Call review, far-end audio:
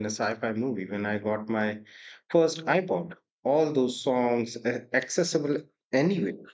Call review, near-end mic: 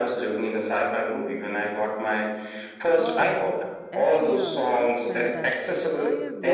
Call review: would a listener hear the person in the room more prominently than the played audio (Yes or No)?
No